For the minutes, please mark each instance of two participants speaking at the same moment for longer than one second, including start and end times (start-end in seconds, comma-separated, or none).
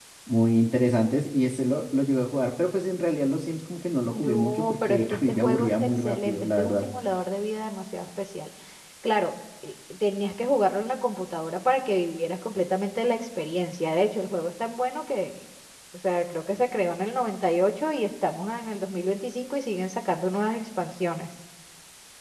4.1-6.9